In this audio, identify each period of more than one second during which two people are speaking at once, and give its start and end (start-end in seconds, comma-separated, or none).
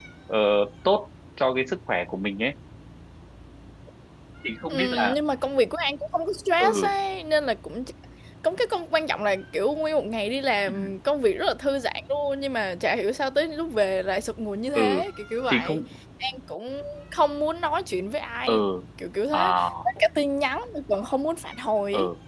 none